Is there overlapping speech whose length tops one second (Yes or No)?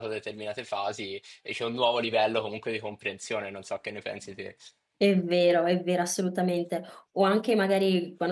No